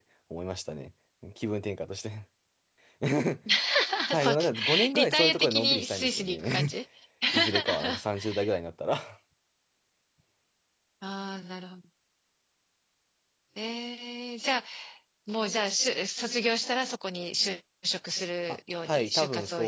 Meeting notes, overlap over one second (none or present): present